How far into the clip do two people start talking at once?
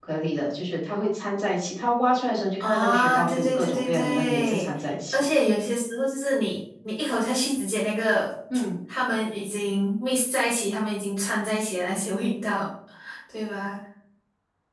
2.6 s

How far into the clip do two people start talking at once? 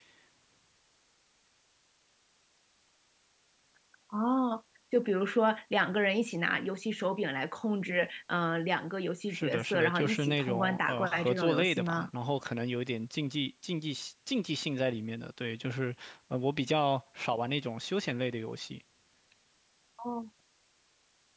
9.3 s

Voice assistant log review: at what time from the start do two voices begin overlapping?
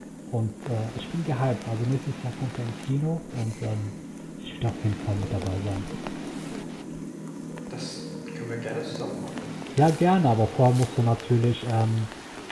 none

